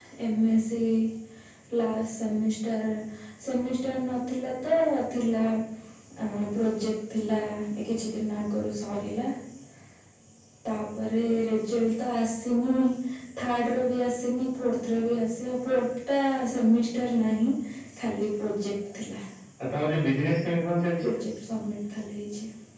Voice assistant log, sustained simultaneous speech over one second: none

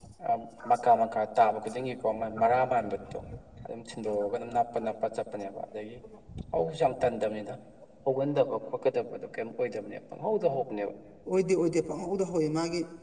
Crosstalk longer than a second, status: none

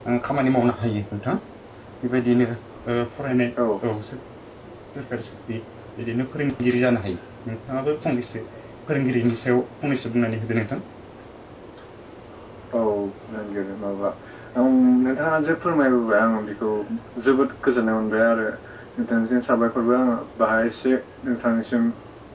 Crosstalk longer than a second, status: none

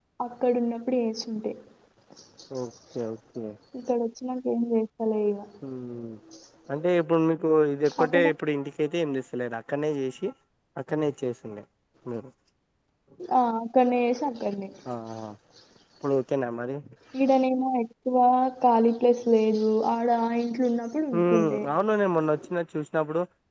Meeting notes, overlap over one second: none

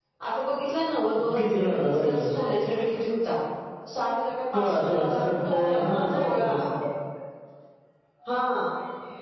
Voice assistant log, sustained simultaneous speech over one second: present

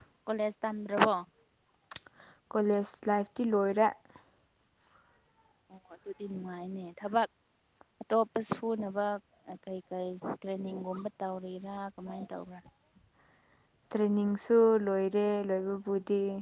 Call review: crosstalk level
none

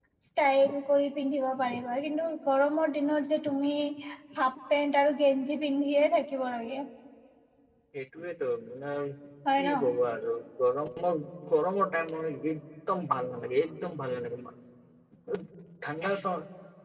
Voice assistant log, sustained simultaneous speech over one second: none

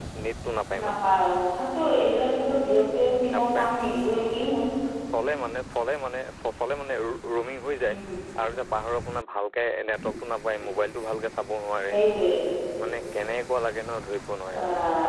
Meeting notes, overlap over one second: none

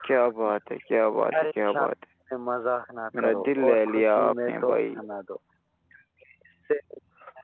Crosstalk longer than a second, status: present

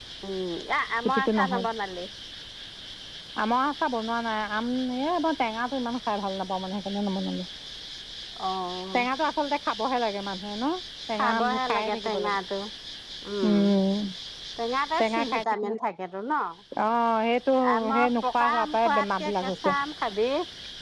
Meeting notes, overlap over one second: present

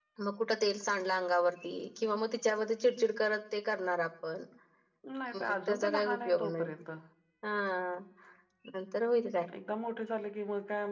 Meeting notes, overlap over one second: present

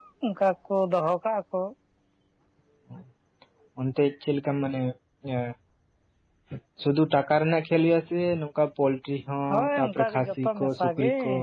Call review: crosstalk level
present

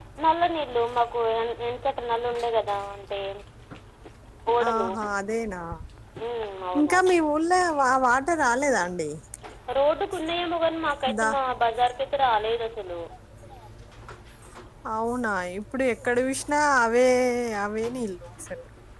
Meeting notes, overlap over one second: none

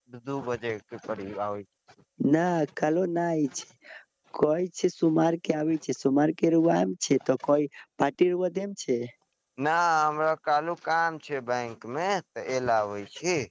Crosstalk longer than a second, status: none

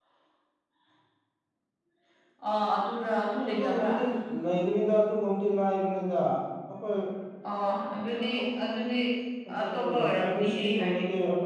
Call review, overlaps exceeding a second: present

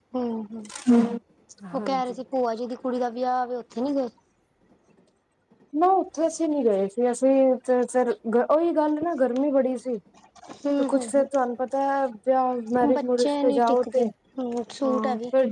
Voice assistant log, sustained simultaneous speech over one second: present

